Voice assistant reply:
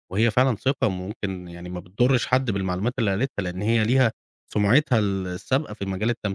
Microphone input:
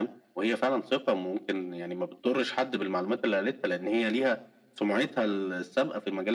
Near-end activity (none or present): none